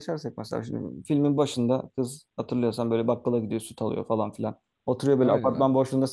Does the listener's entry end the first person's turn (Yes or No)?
No